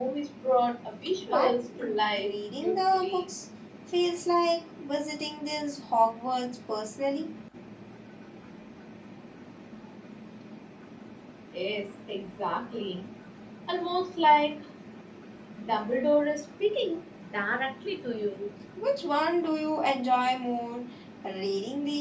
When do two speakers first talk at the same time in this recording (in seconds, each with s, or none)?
1.2 s